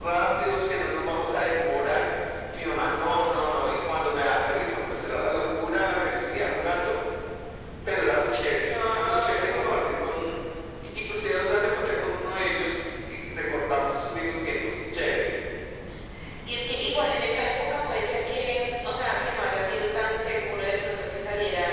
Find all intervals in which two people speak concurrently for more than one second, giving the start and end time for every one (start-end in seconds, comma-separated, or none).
8.6-9.9